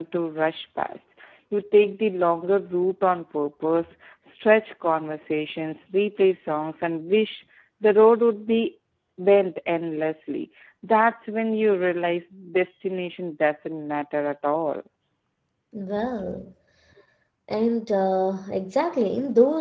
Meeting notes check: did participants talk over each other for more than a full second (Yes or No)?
No